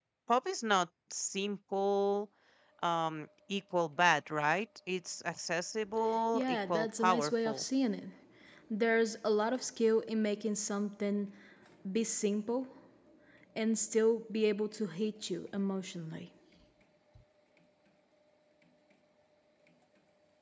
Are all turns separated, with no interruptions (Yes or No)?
No